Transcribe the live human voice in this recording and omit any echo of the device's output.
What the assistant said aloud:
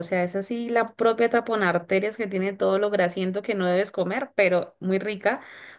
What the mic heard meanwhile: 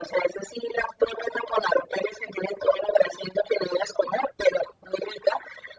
none

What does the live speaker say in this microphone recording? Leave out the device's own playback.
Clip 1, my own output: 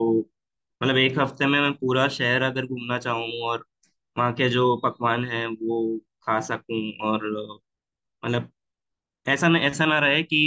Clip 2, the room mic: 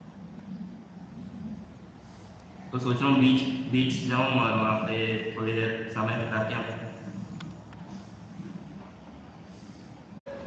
तो सोच रहा हूँ बीच बीच जाऊँ और वहाँ पे थोड़ी देर समय बिता के आऊँ

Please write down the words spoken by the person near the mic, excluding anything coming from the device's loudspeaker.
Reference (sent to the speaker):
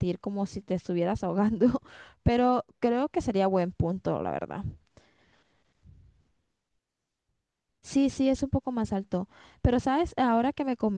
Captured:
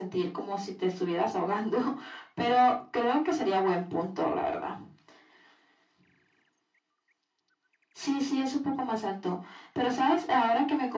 none

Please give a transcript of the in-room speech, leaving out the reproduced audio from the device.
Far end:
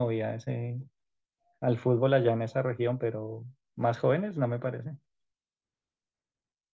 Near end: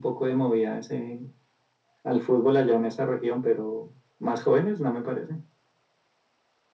none

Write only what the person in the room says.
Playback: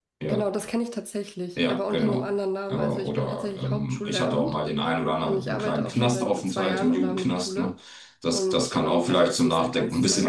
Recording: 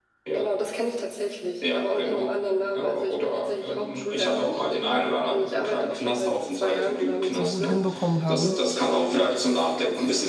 so gut hinbekommen haben.

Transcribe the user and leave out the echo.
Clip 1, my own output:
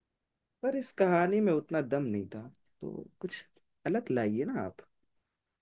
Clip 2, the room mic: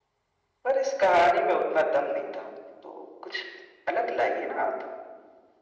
none

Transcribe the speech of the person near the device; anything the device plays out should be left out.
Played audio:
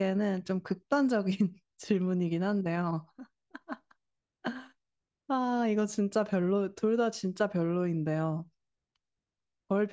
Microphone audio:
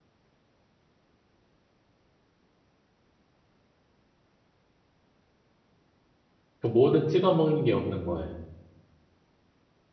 그 뭐든 찍어 먹는 게 없는 거예요.

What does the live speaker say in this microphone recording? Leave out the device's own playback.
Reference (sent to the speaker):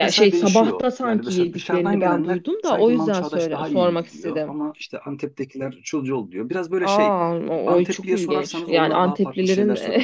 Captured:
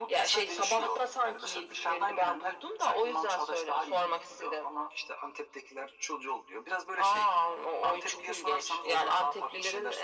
none

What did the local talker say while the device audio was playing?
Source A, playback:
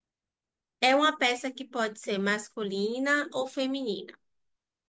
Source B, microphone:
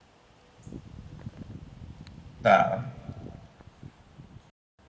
Tá,

